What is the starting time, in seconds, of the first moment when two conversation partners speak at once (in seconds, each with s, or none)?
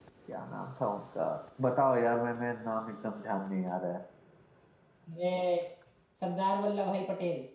none